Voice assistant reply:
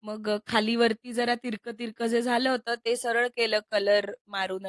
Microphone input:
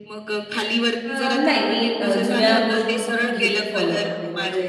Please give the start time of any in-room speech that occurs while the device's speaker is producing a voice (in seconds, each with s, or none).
1.0 s